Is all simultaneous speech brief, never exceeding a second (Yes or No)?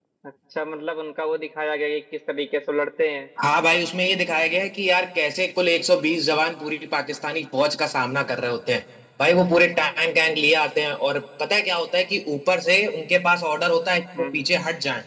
Yes